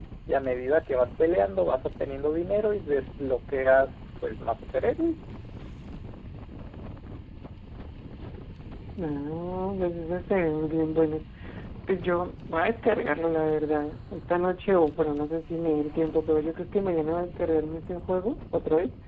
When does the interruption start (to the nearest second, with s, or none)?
none